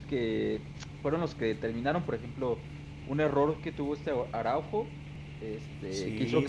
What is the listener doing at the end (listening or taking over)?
listening